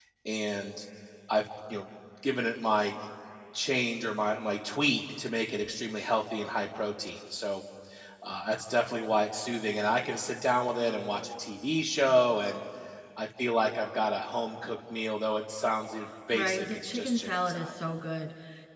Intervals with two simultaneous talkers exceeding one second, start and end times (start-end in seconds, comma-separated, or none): 16.3-17.8